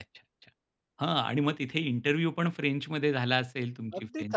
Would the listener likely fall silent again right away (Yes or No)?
No